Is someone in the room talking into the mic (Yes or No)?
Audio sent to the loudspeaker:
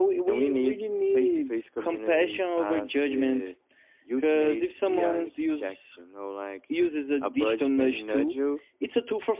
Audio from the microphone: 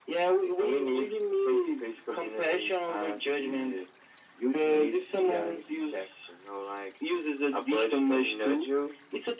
No